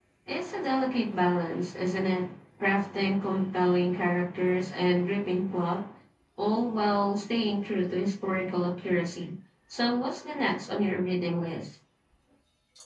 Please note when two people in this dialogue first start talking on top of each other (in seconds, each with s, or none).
none